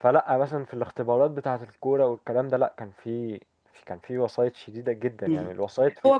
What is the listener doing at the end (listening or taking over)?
taking over